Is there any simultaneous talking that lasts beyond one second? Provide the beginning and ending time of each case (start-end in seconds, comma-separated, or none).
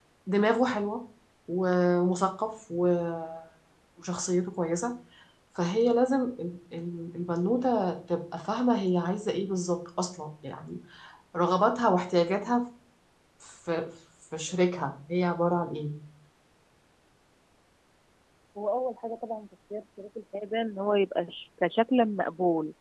none